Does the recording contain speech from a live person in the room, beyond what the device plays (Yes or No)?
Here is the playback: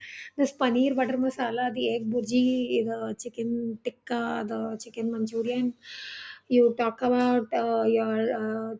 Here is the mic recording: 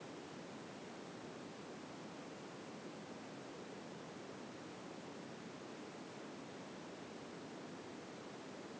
No